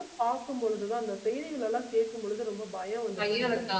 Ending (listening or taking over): taking over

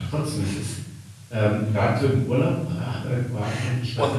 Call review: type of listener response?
listening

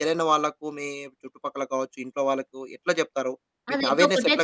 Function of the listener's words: taking over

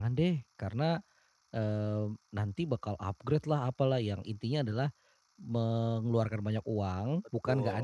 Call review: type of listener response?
listening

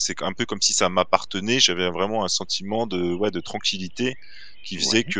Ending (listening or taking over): listening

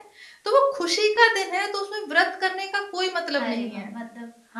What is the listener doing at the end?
taking over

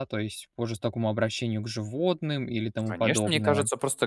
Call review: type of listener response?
taking over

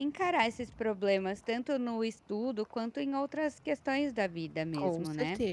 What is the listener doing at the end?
taking over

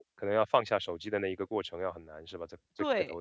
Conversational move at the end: taking over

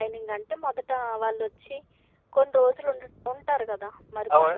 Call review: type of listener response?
taking over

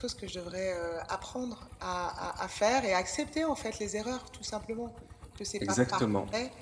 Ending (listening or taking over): listening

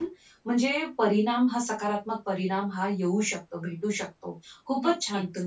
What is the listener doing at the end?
listening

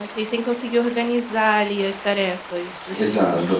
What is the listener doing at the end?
taking over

